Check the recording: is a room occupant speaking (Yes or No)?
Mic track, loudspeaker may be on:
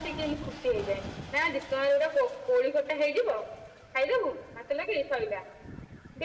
No